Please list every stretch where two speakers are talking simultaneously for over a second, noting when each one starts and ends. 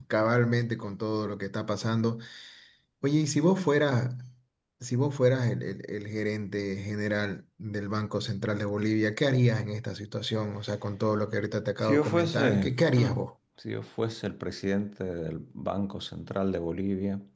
11.8-13.2

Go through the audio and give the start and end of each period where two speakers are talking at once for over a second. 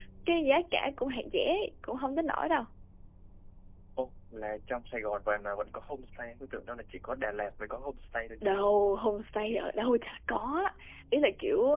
none

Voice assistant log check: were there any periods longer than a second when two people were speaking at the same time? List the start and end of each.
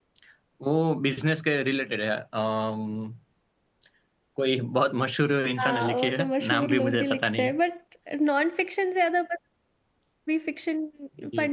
5.6-7.5

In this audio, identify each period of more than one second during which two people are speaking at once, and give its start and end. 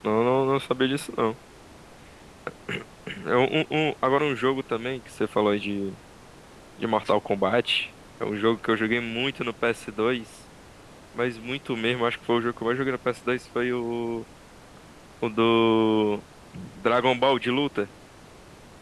none

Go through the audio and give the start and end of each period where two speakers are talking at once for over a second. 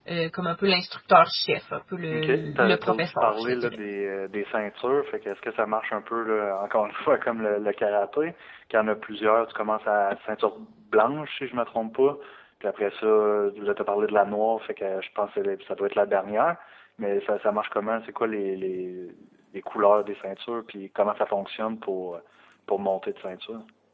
2.1-3.8

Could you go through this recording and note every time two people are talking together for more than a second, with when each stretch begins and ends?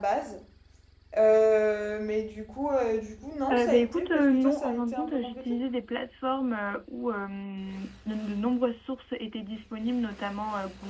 3.5-5.5

